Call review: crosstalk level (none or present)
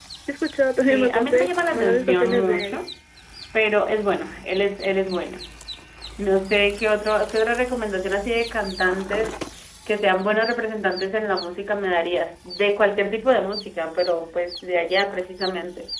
present